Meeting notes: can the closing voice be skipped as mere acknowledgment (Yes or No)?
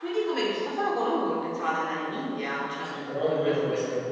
No